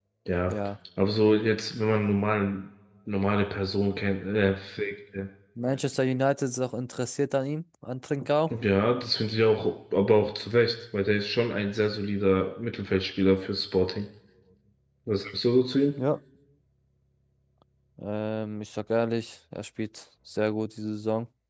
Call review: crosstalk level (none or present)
none